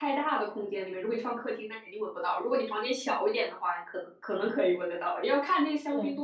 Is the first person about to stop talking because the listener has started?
No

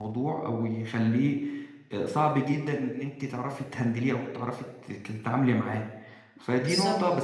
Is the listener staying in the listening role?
Yes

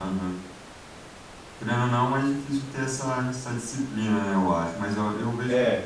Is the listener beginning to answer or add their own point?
No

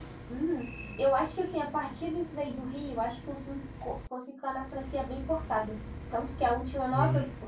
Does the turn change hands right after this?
No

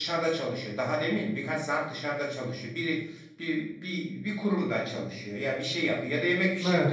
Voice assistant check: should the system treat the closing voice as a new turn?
No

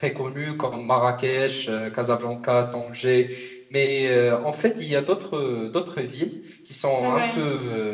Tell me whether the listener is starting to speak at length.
No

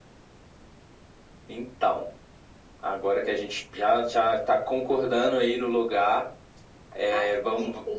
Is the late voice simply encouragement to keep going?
No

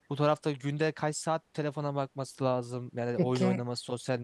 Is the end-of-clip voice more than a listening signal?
No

